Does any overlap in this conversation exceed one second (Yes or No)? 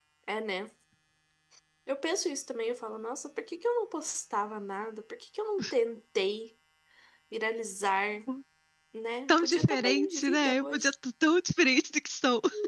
Yes